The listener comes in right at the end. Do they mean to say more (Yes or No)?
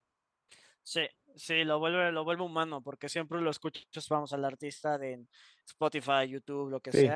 Yes